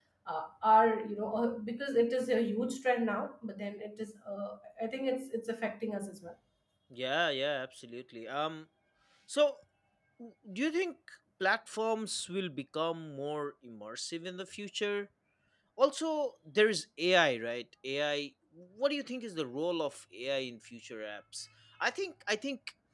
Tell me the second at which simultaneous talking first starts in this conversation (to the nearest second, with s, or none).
none